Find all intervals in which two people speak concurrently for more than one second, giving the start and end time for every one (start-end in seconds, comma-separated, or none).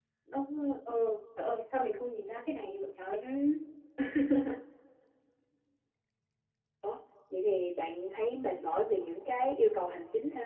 none